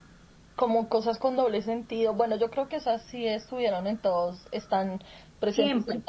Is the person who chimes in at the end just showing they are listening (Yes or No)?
Yes